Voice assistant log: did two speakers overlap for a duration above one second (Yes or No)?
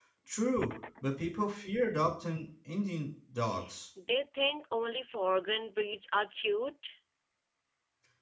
No